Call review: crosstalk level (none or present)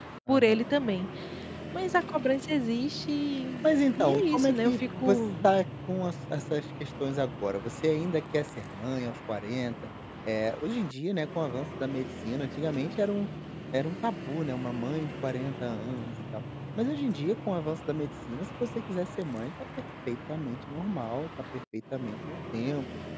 present